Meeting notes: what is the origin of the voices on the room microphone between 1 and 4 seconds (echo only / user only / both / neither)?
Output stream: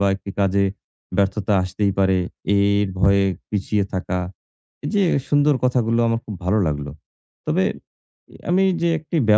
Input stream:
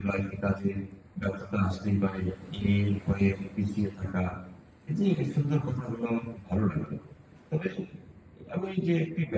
echo only